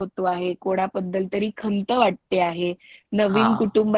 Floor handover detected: No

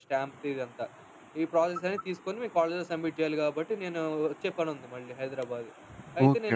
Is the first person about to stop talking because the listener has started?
Yes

